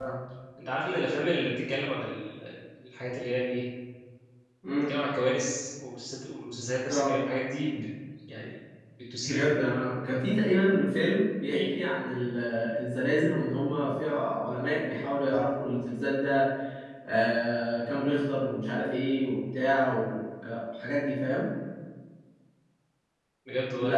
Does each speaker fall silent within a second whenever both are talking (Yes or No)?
Yes